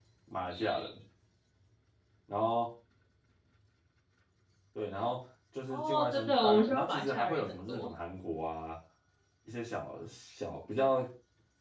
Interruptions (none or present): present